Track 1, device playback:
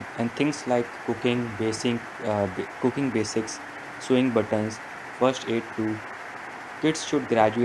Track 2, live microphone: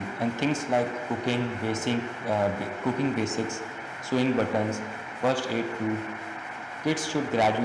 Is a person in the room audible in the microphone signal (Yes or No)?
No